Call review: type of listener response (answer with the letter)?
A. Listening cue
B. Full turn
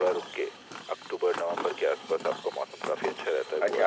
B